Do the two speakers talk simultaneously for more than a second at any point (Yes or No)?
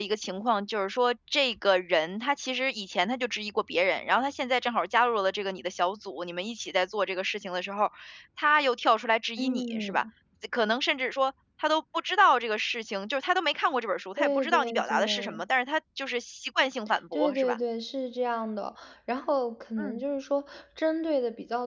Yes